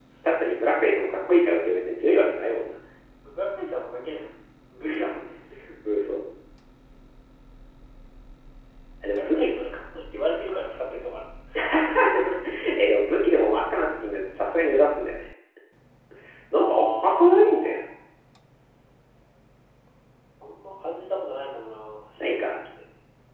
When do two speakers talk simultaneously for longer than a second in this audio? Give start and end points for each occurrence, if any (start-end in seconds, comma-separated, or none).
16.6-17.8